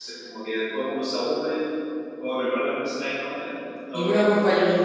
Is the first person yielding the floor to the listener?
Yes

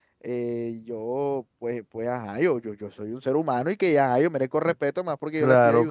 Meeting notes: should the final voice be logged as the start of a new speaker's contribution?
Yes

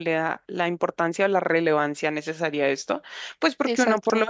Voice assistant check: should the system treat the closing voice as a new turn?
No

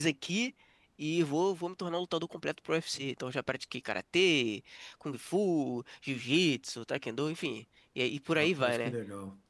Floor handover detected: Yes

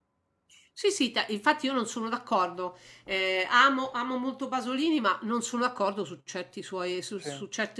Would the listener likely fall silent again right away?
Yes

